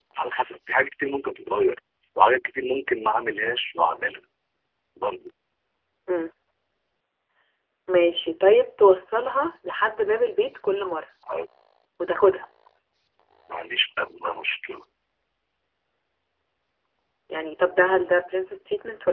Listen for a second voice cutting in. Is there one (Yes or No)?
No